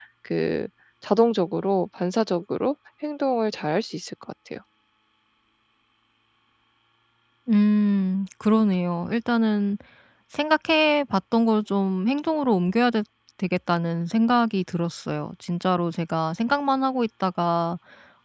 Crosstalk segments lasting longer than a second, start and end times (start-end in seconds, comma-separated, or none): none